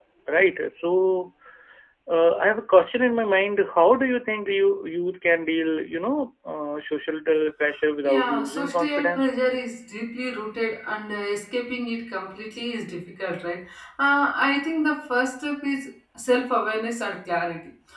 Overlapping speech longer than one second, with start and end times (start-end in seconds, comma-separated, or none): 8.0-9.3